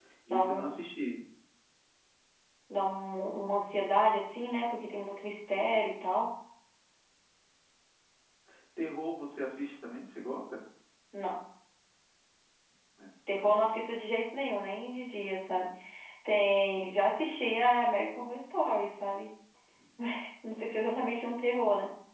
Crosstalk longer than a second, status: none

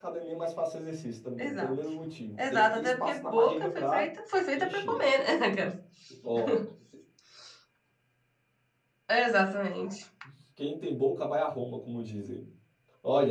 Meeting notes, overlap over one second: present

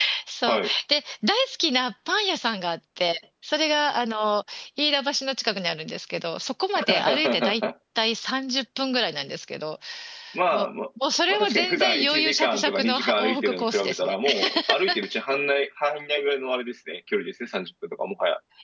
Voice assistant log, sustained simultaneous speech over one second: present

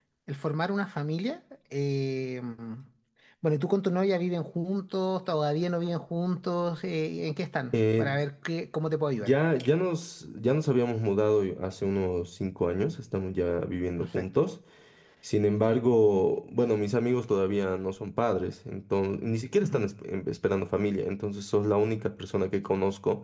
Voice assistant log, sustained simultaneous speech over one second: none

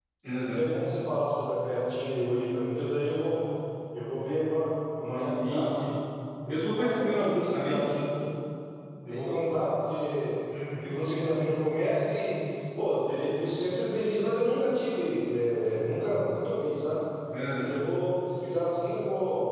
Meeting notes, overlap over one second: present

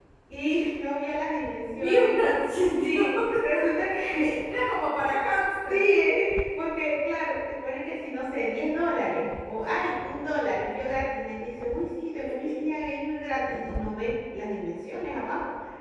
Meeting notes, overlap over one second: none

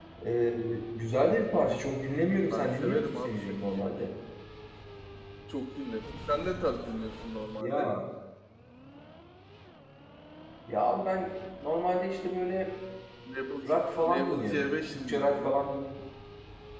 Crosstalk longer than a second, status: present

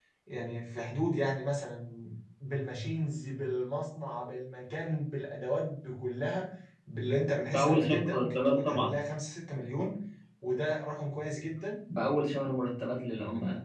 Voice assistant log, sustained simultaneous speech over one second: present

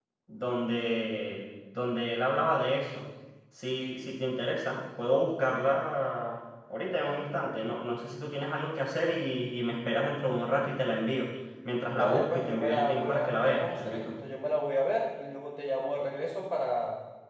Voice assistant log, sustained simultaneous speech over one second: present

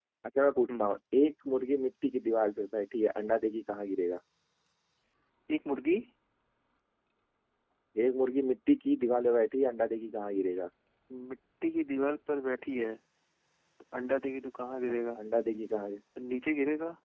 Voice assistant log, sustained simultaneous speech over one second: none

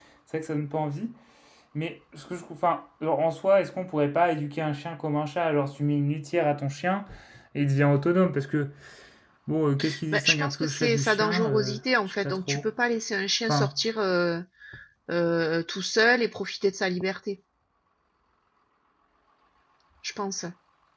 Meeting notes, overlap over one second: present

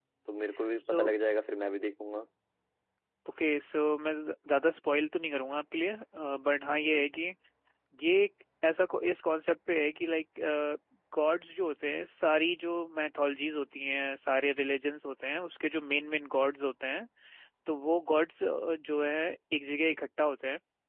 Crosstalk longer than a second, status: none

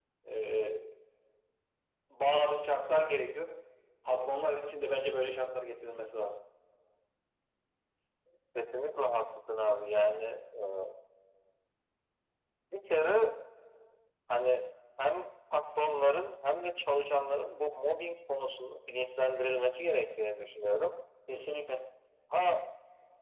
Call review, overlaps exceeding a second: none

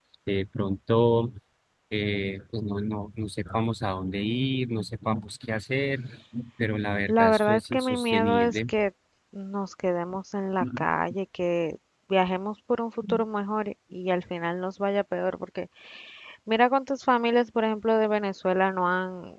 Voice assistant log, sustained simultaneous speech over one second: present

